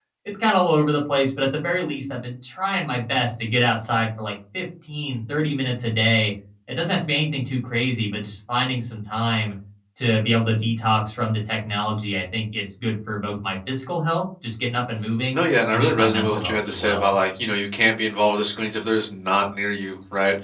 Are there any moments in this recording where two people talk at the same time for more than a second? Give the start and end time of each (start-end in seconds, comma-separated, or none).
15.3-17.1